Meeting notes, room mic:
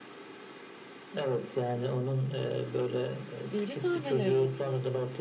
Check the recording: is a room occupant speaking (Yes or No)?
Yes